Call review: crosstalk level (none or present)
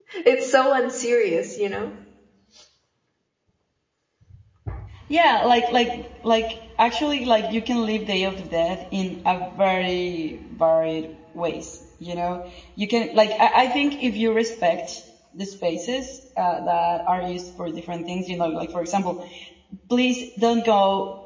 none